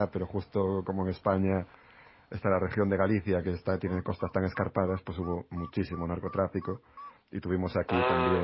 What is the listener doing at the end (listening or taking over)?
listening